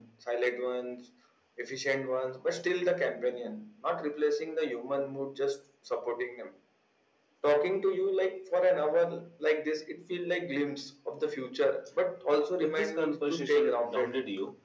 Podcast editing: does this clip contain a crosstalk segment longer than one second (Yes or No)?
Yes